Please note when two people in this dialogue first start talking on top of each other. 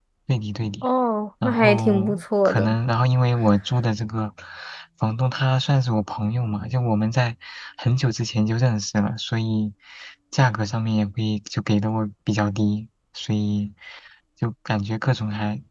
1.4 s

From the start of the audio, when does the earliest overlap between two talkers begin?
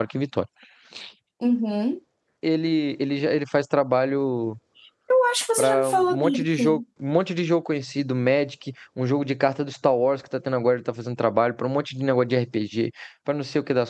5.6 s

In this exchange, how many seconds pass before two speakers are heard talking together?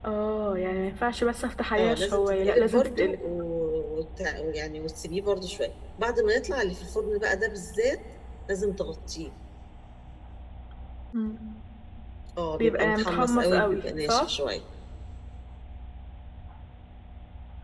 1.8 s

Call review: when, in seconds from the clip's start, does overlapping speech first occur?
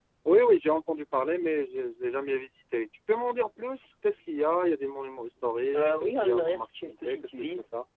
5.7 s

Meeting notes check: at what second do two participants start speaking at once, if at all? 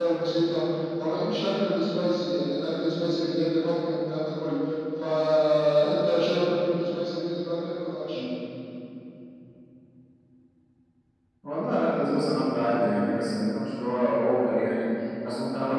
none

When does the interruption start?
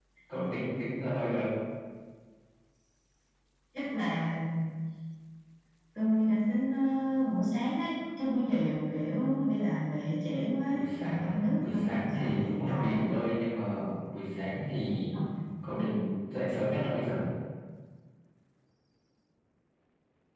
10.7 s

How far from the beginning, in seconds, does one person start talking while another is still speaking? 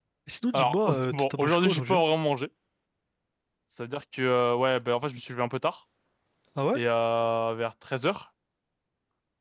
0.5 s

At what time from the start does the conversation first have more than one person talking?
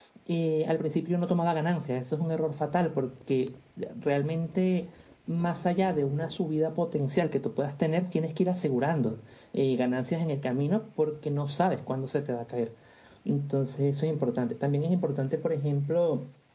none

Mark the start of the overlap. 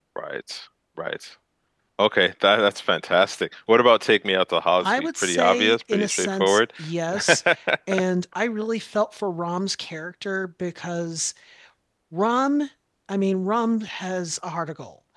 4.8 s

